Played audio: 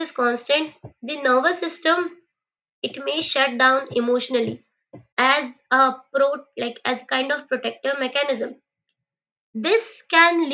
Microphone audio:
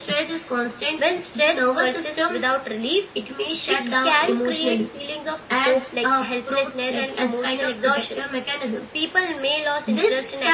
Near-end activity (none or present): present